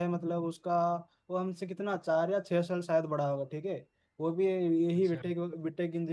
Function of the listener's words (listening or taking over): listening